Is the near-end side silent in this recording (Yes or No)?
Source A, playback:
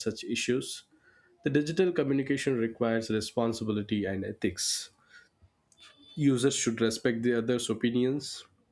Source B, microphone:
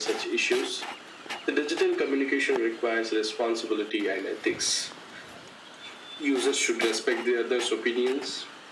Yes